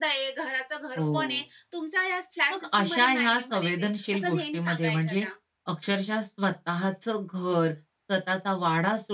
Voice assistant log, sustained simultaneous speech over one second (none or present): present